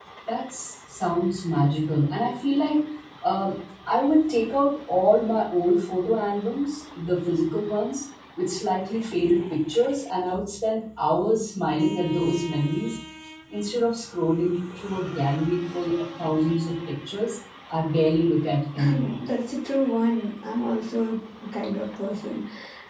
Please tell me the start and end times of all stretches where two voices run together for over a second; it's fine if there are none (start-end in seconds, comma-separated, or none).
none